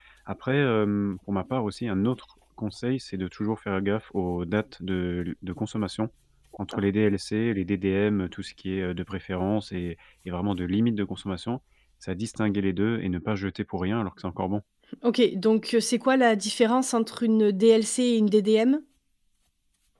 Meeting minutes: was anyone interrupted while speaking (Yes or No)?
No